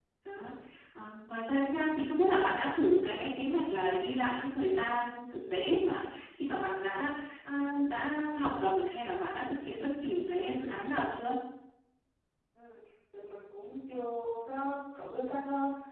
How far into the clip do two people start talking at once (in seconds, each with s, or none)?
none